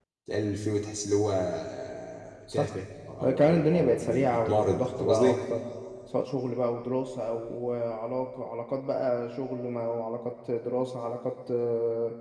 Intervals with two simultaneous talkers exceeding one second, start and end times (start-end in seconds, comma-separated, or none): 3.2-5.4